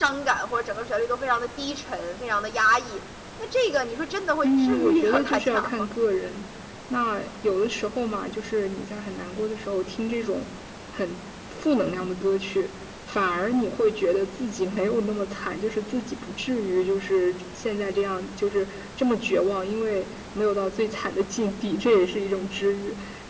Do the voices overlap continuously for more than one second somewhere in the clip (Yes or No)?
Yes